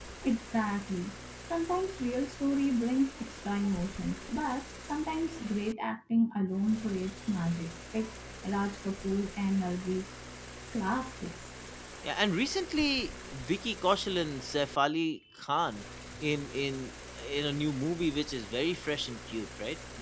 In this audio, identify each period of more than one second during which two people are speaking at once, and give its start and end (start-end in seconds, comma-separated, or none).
none